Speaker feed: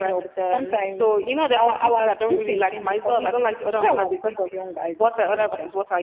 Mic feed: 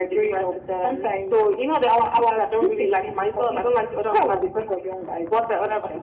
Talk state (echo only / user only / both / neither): echo only